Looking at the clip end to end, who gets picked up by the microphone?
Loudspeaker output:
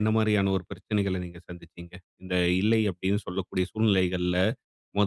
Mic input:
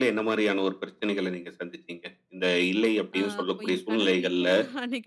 both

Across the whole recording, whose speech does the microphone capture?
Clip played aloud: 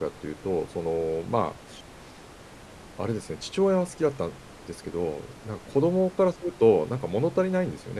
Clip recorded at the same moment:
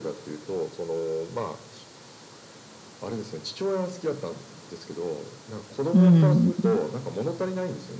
both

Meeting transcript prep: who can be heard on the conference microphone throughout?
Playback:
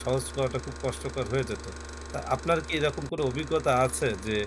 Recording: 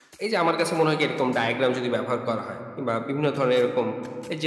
user only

